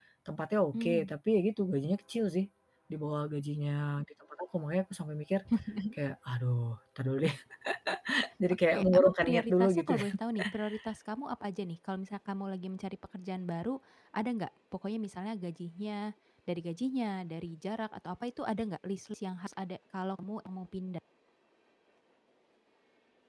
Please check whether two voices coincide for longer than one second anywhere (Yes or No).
Yes